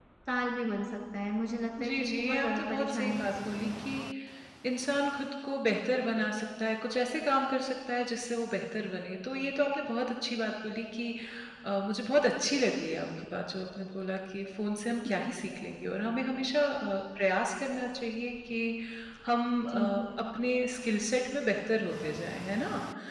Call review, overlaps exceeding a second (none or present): present